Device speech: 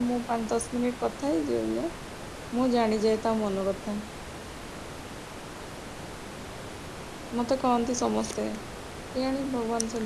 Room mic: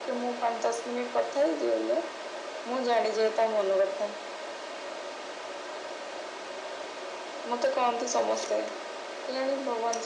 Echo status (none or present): present